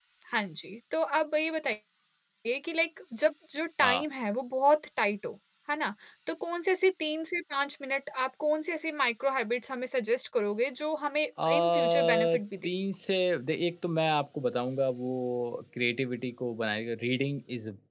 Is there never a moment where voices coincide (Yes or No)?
No